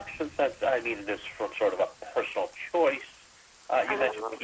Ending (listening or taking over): listening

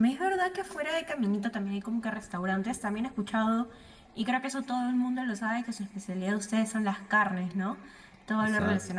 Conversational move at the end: listening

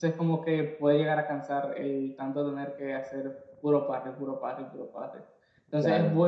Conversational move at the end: listening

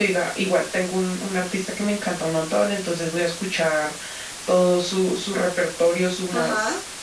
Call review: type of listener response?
listening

